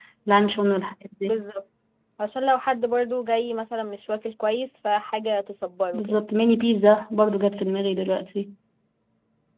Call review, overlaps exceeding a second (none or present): none